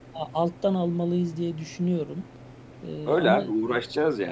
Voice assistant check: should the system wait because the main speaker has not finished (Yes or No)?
No